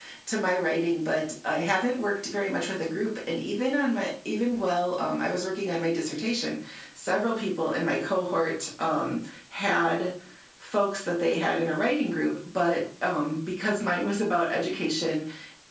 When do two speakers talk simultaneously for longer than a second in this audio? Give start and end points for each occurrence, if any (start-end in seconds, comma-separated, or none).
none